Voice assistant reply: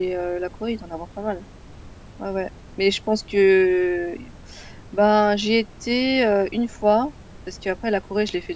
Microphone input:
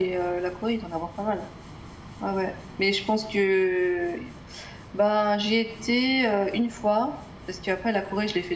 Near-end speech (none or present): none